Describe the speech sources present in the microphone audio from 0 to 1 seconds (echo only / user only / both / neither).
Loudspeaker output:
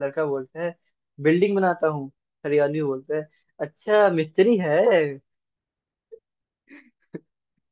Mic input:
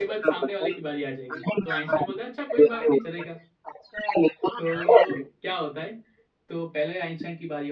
both